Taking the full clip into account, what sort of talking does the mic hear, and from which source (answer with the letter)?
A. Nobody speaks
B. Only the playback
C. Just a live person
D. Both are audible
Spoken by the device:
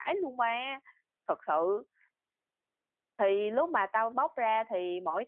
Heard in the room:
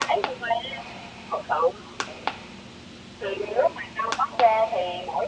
B